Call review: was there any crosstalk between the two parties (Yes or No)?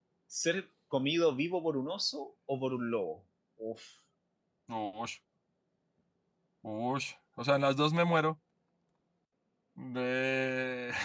No